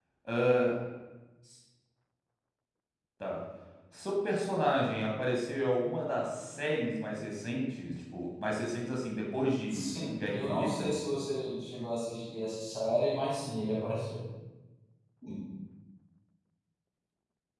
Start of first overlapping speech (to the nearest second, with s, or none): 10 s